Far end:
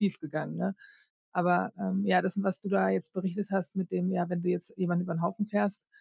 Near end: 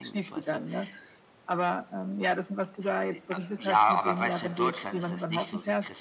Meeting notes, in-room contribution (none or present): present